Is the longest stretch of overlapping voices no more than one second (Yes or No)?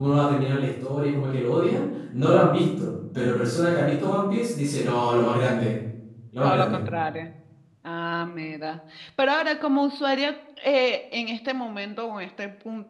Yes